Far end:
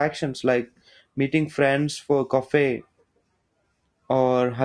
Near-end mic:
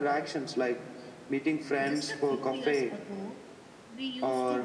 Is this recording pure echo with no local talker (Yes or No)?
No